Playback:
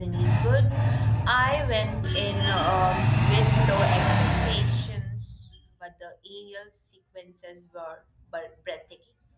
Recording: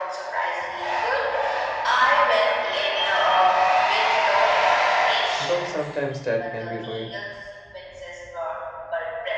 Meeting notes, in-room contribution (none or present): present